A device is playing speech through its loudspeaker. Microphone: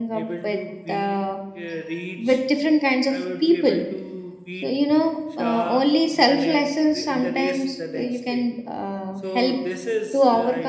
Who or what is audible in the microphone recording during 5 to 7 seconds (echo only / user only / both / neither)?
both